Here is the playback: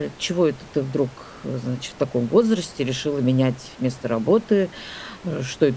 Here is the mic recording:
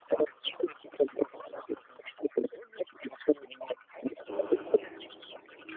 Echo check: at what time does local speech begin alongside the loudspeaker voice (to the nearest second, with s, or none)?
4 s